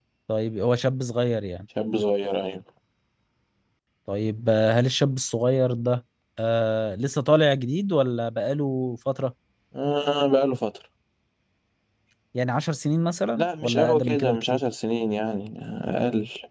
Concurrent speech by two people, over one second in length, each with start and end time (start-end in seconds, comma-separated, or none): 13.4-14.6